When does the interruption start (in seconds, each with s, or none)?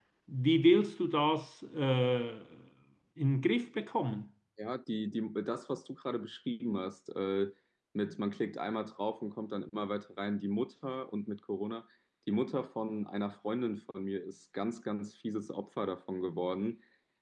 none